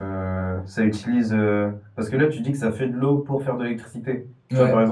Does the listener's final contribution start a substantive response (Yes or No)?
No